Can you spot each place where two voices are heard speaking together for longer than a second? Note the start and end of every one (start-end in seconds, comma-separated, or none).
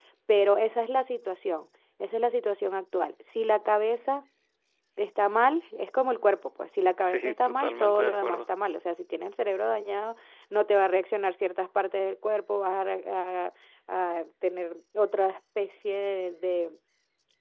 7.0-8.4